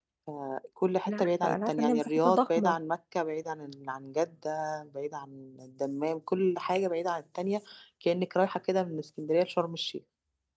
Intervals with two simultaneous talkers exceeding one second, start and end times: 1.1-2.8

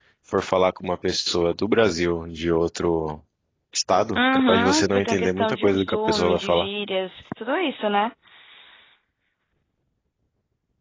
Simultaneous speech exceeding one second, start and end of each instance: 4.2-6.7

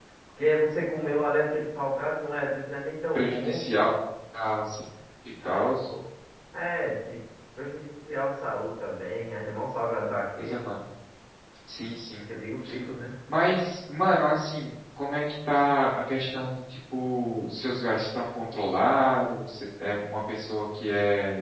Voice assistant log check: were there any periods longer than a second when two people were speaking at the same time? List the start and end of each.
none

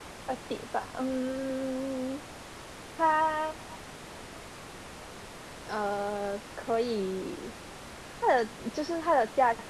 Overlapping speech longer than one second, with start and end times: none

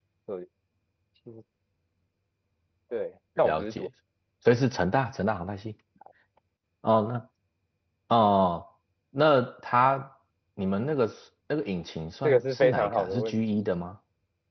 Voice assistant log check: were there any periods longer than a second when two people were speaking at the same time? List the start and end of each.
12.2-13.6

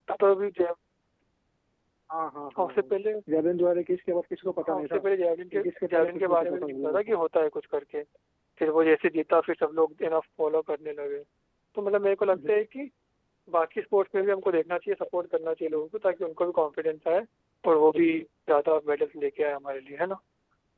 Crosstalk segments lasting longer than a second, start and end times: 5.6-7.0

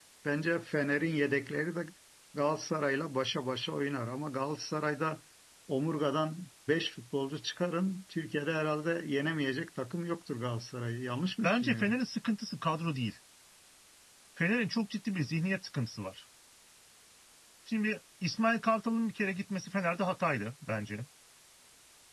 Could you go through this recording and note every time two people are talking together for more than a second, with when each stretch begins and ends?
none

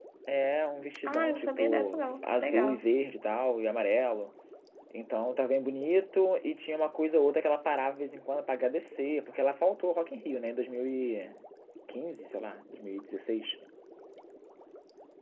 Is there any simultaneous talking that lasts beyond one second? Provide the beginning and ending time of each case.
1.0-2.8

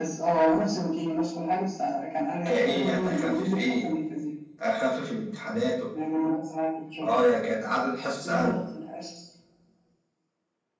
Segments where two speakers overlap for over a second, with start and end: 2.5-3.9

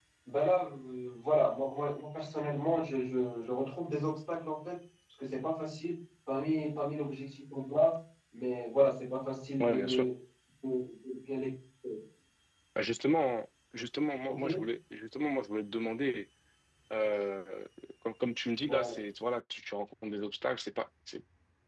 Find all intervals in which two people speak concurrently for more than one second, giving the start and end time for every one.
none

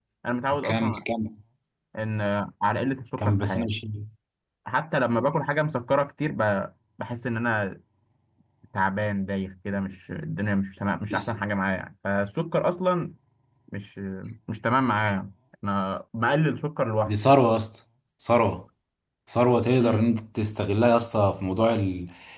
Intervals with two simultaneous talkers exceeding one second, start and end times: none

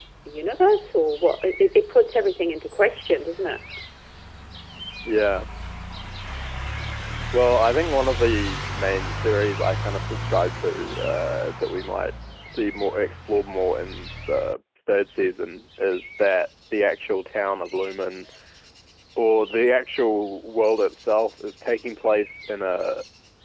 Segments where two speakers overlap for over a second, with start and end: none

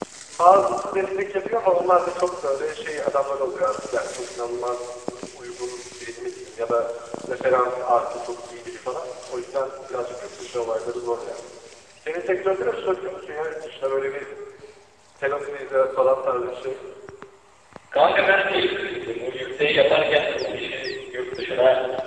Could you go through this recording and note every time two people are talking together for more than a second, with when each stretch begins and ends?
none

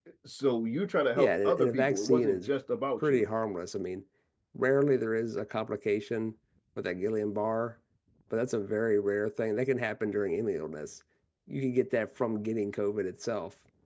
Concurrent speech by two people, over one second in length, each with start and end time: 1.2-2.5

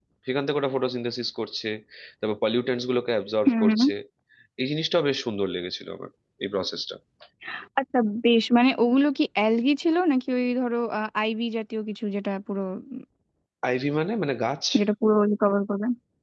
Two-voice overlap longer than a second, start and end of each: none

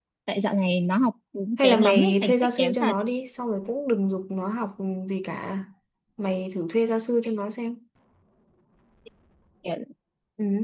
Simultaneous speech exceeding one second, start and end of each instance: 1.6-3.0

